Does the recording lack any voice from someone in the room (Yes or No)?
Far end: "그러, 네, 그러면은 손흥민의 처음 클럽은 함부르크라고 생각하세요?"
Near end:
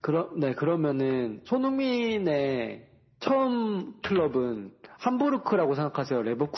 Yes